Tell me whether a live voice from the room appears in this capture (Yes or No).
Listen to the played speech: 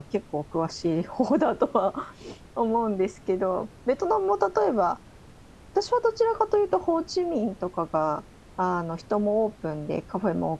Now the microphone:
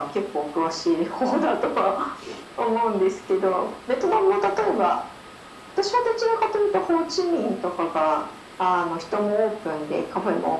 No